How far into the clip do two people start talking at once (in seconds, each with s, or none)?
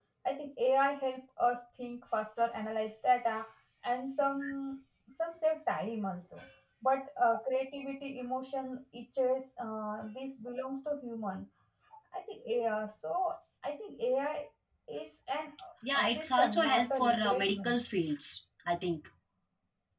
16.0 s